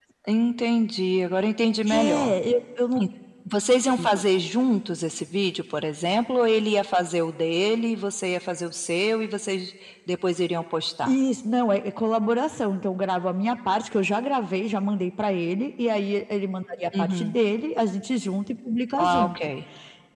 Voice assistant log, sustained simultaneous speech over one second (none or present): none